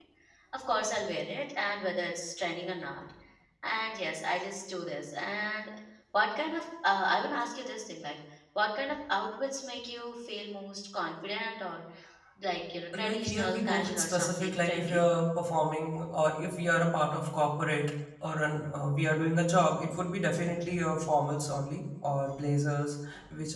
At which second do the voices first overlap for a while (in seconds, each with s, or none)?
12.9 s